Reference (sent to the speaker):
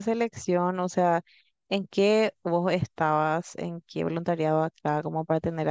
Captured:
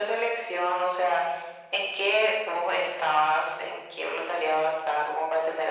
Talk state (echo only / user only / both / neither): echo only